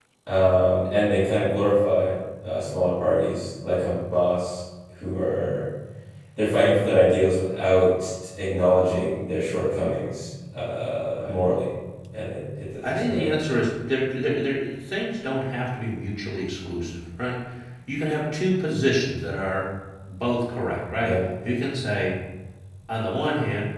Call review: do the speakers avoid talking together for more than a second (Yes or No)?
Yes